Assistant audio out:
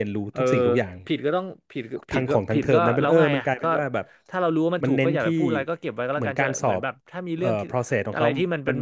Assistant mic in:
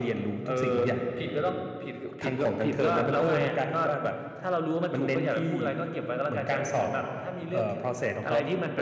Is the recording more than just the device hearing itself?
No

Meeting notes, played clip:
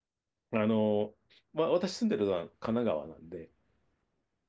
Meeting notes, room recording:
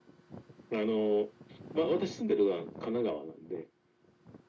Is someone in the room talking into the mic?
No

